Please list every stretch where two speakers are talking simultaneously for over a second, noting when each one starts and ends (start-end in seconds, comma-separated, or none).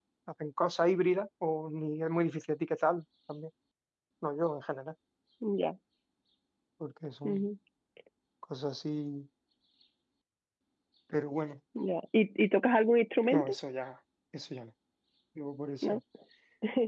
none